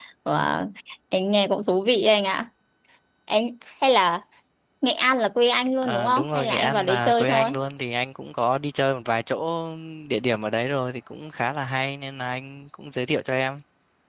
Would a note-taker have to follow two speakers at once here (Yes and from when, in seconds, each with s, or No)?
Yes, from 5.8 s